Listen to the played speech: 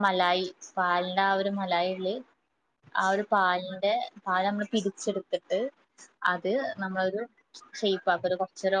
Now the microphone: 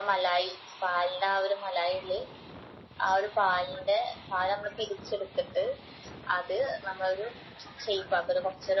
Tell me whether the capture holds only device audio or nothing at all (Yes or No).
Yes